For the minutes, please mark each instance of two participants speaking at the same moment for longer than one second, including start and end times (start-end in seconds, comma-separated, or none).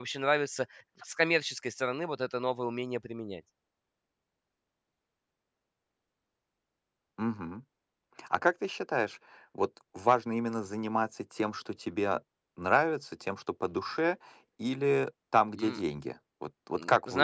none